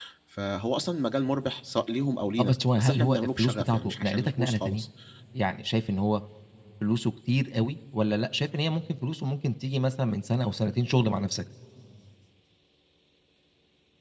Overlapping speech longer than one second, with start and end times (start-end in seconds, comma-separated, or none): 2.4-4.8